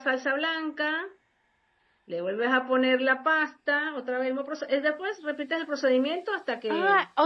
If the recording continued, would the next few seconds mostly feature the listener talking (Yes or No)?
Yes